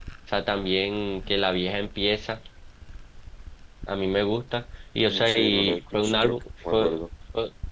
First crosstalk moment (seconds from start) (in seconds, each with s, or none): 5.1 s